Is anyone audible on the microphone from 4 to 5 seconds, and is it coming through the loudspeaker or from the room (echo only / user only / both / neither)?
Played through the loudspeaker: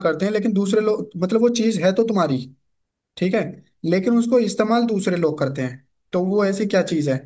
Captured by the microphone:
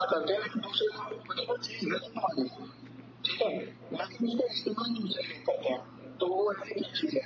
echo only